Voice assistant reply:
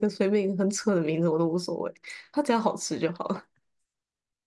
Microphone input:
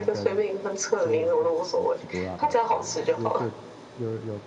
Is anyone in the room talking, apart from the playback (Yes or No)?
Yes